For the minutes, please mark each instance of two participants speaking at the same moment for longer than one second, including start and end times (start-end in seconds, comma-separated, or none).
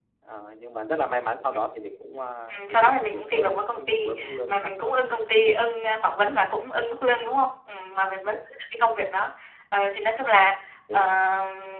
2.5-5.0